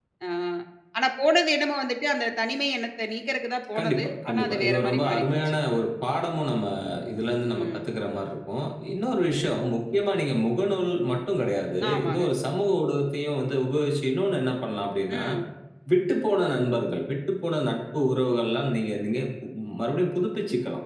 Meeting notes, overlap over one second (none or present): present